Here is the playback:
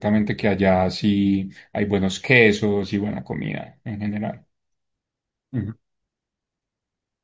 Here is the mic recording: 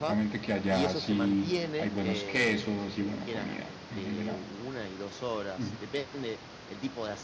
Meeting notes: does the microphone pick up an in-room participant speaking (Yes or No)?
Yes